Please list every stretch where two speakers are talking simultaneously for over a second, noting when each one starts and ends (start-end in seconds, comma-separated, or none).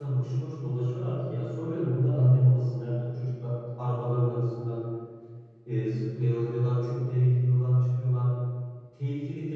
none